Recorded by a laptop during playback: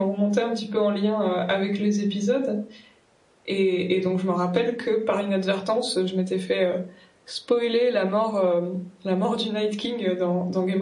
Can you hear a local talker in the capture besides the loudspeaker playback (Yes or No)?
No